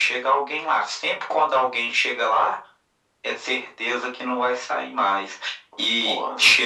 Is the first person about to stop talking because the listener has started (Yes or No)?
No